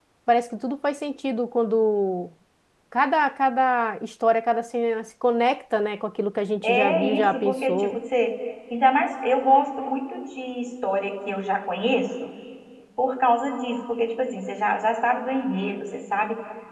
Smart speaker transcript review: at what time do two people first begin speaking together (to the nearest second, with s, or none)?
7 s